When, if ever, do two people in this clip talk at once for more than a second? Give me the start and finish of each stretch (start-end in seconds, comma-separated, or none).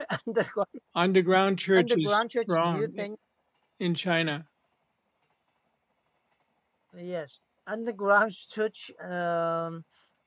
1.8-3.1